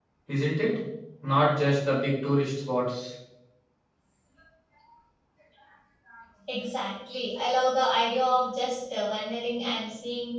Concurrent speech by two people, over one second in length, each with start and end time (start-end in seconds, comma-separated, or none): none